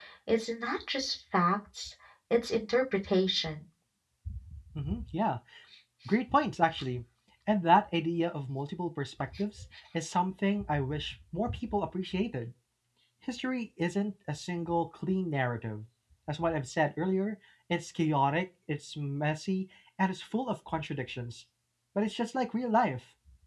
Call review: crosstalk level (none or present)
none